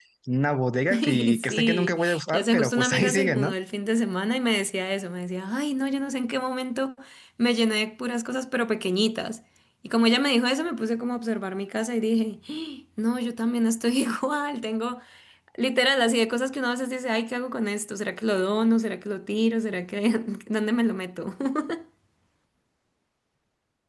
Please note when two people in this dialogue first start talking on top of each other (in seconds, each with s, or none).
0.9 s